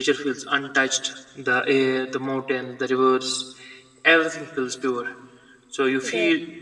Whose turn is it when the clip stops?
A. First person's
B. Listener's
A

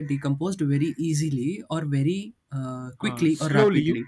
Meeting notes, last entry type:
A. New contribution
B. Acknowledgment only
A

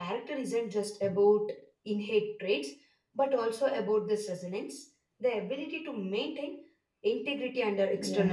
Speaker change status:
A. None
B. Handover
B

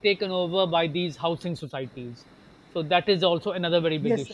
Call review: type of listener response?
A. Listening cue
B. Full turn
B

